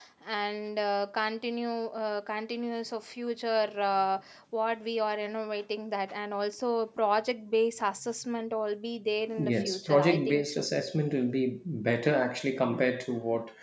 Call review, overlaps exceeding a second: present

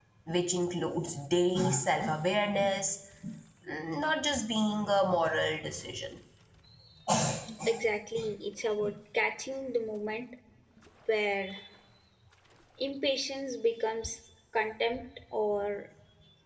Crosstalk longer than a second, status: none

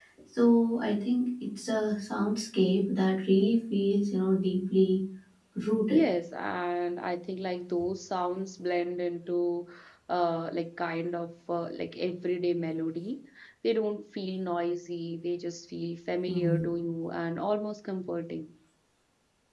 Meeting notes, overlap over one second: none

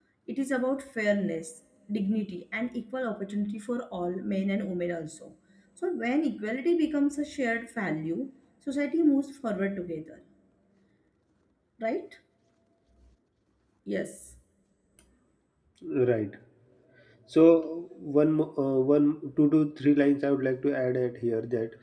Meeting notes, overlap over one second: none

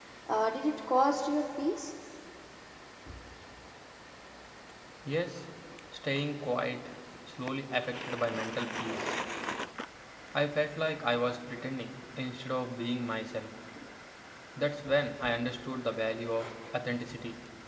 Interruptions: none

